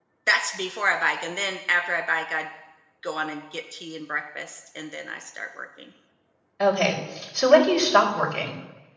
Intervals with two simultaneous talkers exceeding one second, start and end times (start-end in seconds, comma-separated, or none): none